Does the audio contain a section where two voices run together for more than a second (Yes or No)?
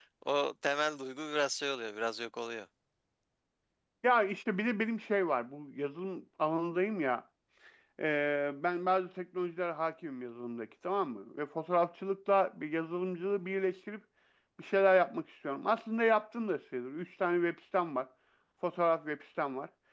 No